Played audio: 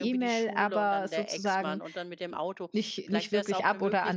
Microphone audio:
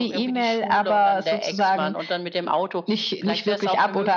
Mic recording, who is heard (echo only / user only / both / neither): echo only